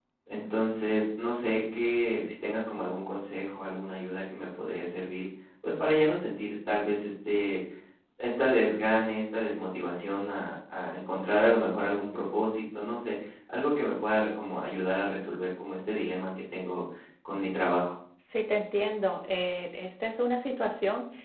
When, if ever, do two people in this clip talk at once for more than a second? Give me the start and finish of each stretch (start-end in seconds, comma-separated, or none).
none